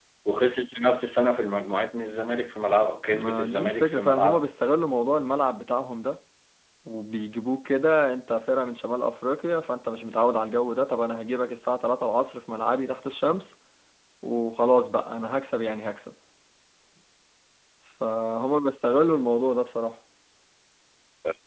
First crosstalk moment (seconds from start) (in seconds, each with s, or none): 3.1 s